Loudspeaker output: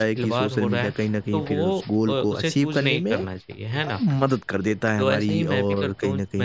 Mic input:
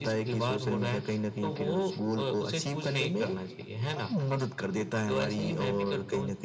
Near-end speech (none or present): none